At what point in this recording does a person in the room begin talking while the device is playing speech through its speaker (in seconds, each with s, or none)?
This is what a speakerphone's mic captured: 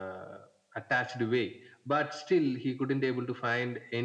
none